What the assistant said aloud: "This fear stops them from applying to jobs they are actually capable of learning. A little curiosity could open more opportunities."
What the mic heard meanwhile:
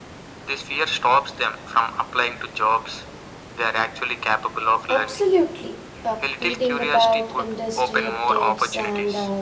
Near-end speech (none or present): present